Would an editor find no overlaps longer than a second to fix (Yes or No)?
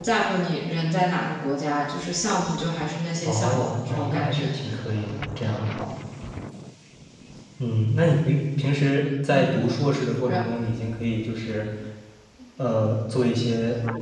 No